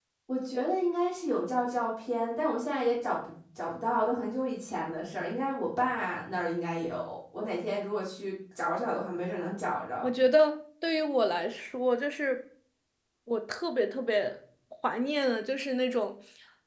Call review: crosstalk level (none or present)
none